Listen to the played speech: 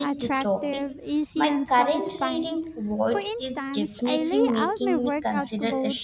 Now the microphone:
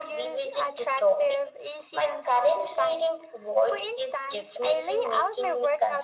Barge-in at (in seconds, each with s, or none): none